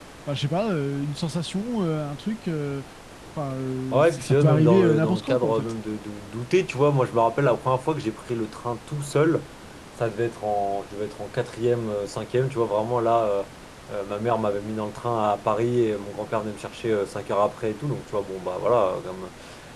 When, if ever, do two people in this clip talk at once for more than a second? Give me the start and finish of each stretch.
3.9-5.7

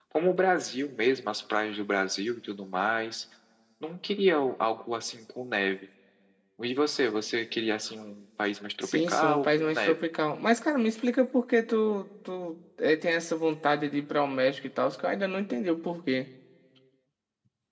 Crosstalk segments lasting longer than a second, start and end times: 8.8-10.0

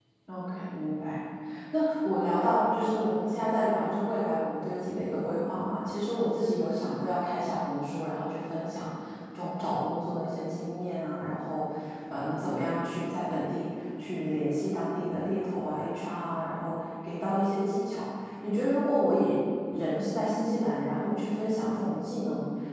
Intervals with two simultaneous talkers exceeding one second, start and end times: none

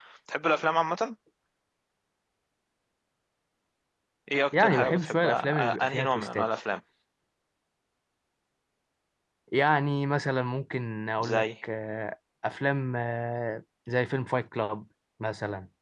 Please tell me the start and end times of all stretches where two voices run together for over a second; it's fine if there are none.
4.6-6.5

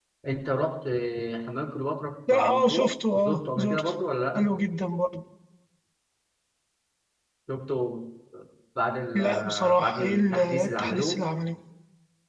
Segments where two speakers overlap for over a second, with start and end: 2.3-3.9, 9.2-11.2

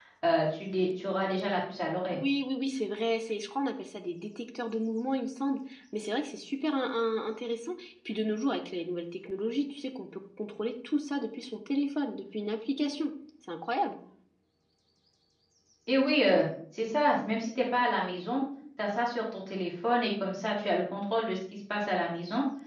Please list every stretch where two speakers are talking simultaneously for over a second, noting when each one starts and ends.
none

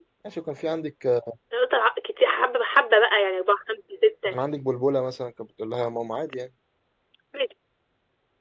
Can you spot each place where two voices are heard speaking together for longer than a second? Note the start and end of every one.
none

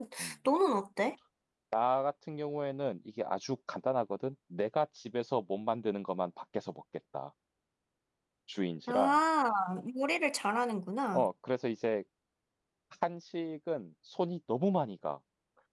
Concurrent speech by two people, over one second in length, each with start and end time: none

